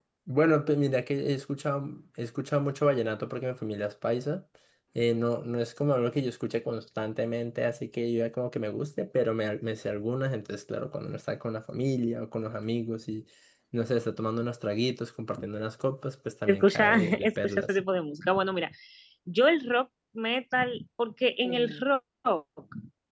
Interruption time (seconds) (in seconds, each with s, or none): 16.5 s